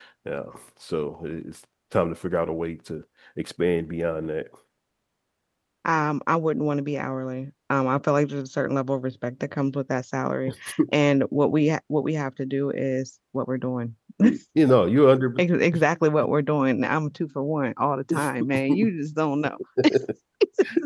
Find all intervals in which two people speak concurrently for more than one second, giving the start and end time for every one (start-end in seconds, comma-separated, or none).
none